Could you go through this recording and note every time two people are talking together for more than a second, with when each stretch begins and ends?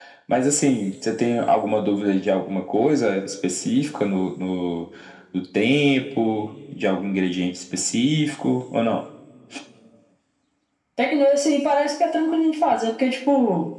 none

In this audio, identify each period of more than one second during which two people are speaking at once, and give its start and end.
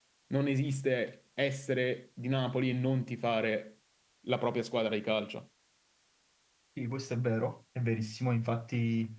none

